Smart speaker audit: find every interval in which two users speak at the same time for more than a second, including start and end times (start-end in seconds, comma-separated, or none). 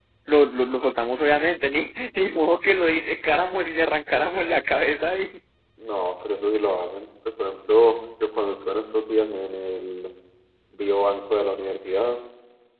none